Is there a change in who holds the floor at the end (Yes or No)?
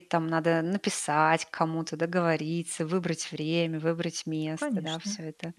Yes